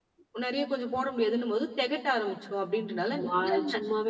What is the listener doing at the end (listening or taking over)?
taking over